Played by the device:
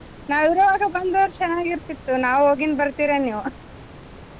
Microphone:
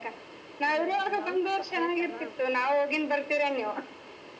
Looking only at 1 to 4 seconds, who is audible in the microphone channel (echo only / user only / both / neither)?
both